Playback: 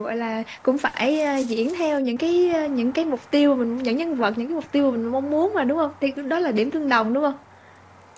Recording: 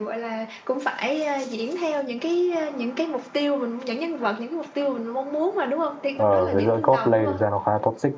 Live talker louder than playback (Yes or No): Yes